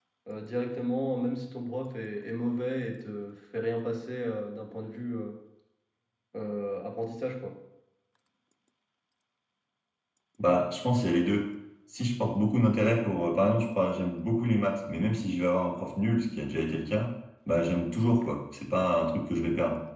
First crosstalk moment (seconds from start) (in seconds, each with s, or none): none